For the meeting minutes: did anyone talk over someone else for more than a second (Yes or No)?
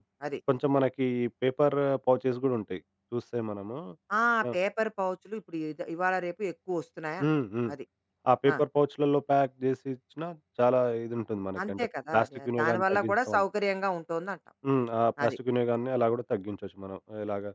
Yes